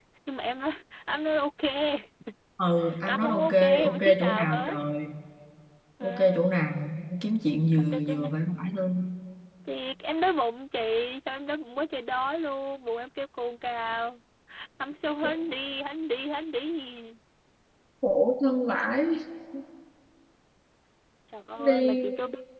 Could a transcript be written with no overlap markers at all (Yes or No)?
No